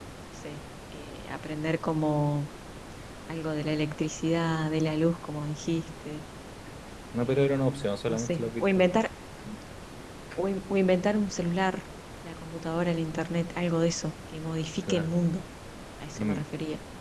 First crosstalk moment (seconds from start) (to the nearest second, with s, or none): 7 s